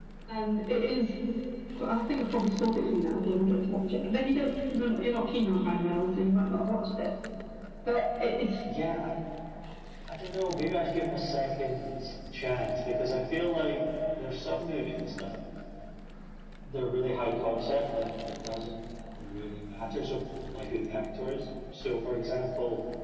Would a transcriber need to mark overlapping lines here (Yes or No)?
No